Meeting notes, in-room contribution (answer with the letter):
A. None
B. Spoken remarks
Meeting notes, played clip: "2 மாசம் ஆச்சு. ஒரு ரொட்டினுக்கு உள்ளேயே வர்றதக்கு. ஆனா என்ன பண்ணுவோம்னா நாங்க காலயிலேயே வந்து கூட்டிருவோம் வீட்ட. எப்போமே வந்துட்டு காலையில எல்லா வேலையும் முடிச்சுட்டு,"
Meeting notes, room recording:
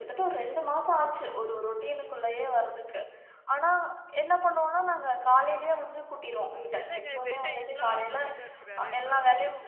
B